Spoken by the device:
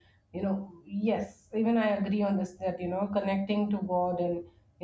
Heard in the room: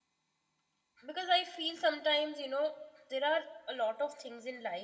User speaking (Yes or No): Yes